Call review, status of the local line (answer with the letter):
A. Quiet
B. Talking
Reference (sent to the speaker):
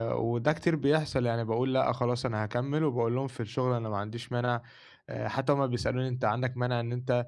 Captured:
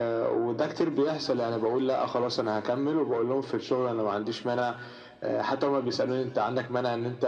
A